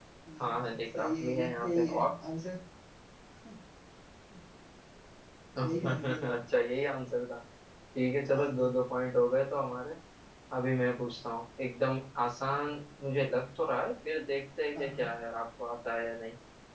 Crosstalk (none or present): present